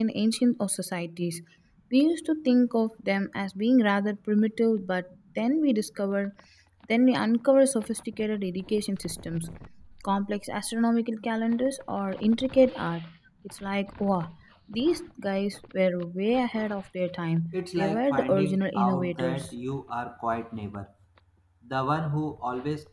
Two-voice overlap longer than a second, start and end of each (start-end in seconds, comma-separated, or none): 17.5-19.5